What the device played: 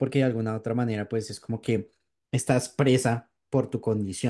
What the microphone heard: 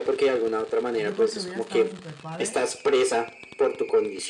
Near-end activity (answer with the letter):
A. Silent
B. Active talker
B